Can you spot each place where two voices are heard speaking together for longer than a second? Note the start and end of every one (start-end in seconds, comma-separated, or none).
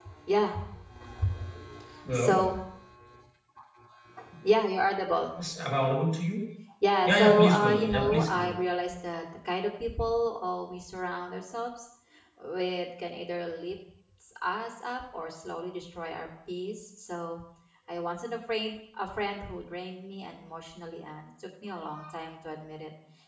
7.0-8.6